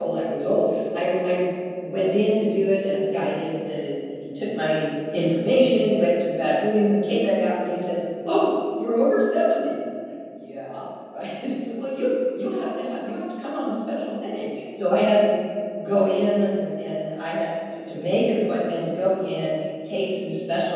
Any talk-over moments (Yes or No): No